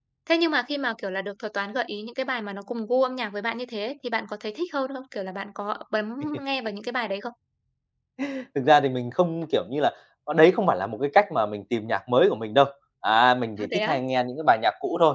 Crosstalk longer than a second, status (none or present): none